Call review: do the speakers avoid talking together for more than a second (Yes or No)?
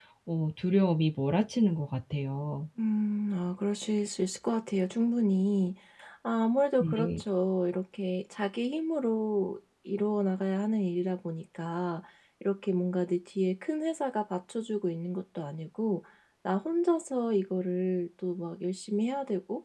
Yes